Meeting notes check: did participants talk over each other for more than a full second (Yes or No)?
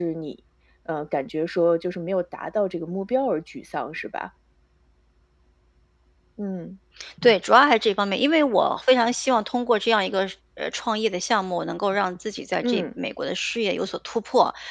No